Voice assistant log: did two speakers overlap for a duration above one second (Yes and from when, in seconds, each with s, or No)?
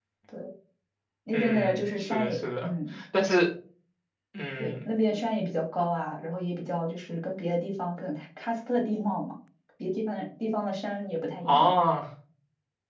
Yes, from 1.3 s